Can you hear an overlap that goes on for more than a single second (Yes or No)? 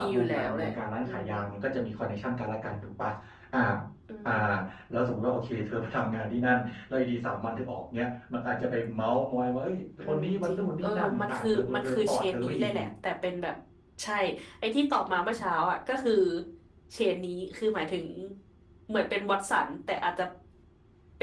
Yes